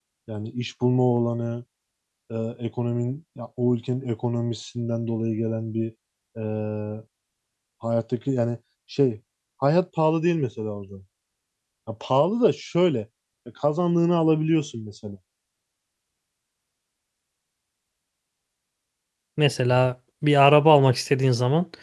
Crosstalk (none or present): none